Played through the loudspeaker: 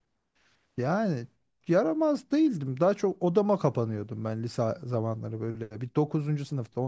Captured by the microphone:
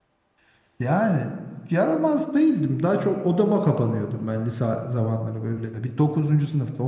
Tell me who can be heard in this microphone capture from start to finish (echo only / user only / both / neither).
echo only